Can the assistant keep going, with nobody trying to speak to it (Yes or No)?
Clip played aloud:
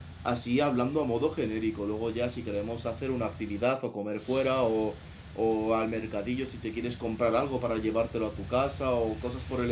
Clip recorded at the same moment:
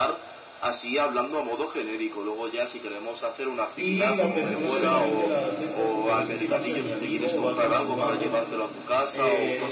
No